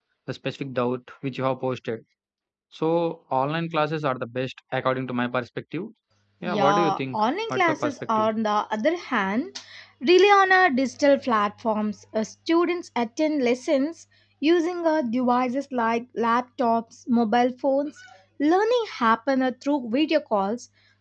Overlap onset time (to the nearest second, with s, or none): 6 s